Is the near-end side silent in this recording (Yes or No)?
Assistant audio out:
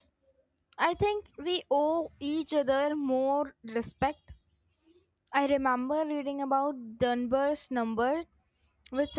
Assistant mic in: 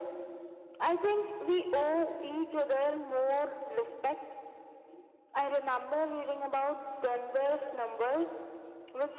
Yes